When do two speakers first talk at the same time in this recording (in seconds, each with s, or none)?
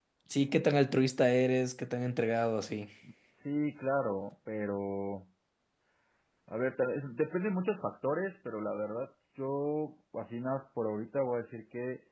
none